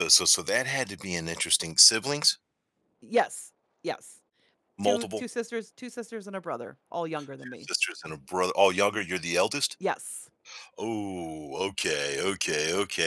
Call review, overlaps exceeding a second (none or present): none